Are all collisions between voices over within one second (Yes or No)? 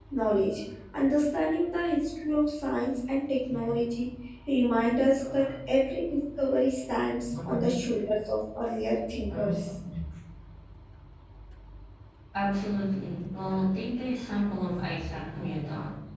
Yes